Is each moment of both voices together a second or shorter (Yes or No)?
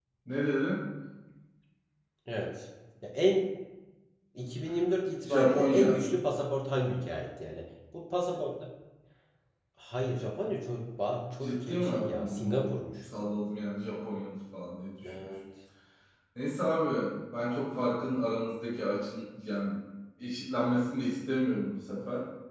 No